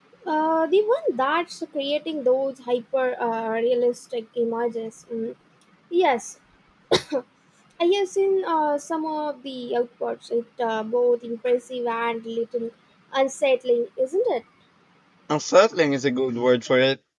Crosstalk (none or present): none